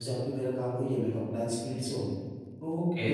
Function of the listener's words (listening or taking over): taking over